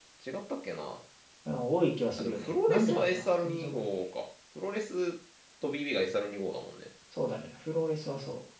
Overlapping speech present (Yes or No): Yes